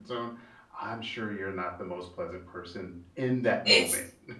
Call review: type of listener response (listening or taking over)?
taking over